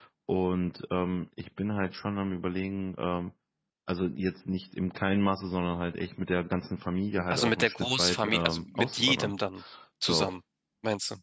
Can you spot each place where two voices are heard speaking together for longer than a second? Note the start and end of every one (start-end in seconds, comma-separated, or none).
7.3-9.3